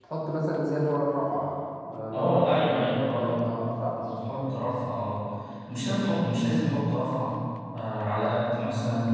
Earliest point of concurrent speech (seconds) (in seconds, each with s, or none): 2.1 s